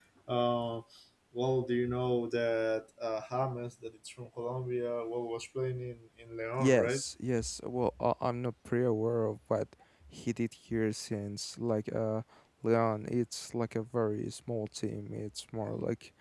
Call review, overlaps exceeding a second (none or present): none